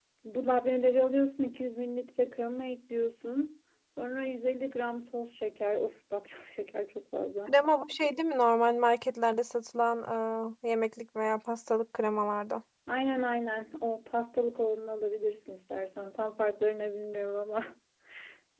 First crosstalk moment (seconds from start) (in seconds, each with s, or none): none